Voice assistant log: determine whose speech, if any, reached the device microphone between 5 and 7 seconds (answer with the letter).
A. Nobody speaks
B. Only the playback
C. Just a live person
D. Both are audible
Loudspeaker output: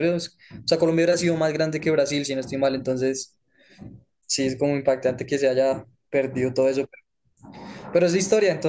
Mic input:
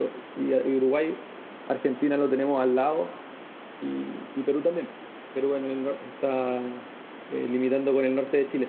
C